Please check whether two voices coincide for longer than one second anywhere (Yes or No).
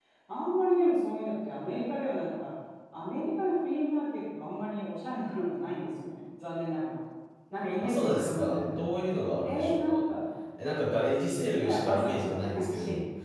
Yes